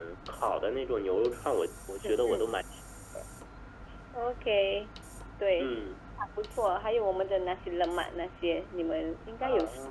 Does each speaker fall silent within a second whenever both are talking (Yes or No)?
Yes